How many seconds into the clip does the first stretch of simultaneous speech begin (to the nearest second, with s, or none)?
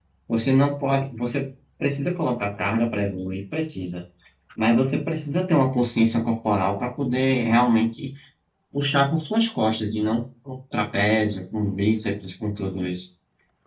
none